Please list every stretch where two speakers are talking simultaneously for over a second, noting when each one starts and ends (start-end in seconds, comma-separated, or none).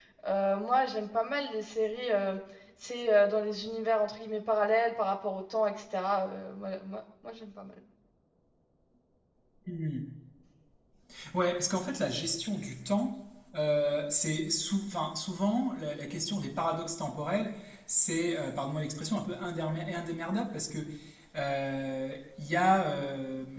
none